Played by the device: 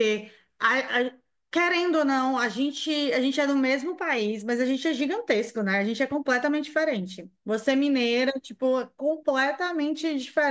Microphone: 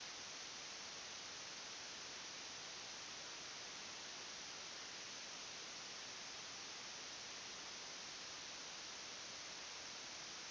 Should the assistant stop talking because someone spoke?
No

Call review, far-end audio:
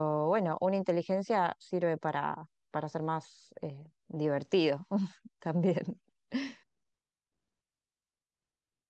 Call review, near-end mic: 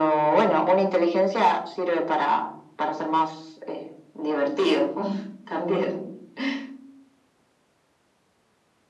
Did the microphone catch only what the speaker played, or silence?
Yes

